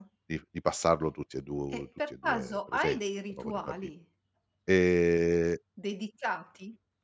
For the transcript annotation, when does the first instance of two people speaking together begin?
1.7 s

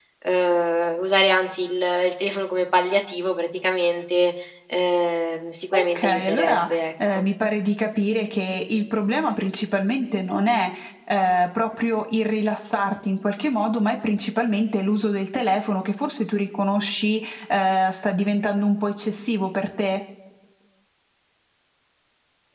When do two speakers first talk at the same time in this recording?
5.7 s

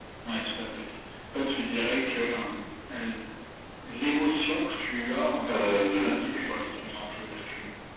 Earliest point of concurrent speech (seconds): 5.4 s

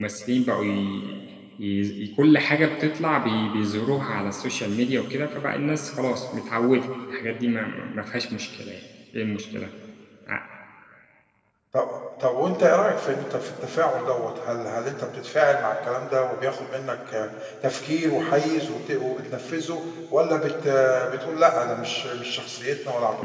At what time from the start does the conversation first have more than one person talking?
none

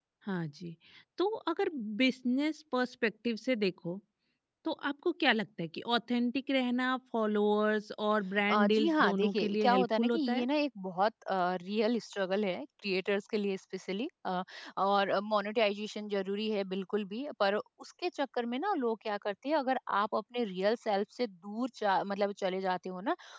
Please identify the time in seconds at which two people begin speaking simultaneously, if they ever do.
8.5 s

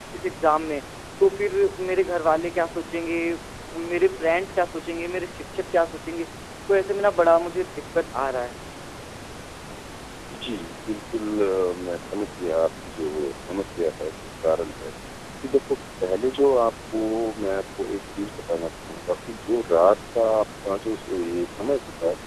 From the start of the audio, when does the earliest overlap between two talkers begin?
none

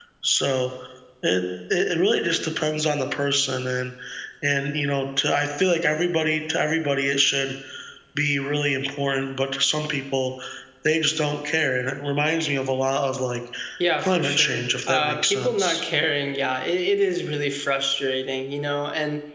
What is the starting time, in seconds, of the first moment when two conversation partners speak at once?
14.0 s

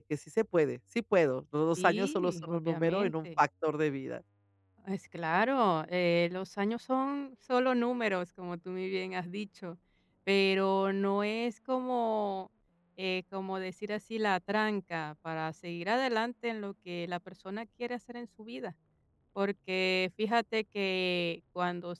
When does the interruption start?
1.8 s

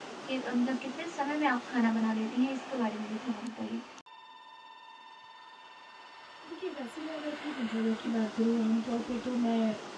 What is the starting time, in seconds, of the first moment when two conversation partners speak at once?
none

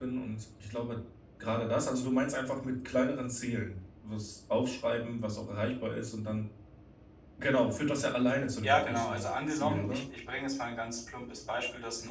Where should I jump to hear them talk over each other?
8.6 s

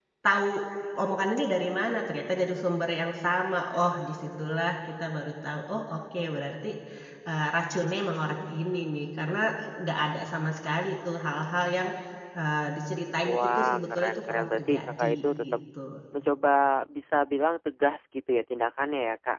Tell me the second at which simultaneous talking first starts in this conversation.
13.2 s

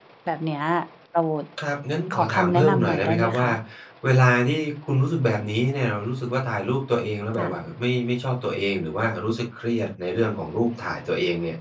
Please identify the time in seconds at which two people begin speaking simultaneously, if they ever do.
2.1 s

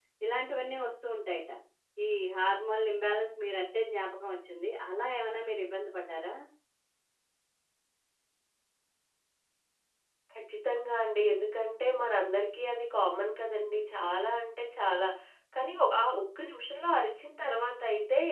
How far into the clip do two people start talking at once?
none

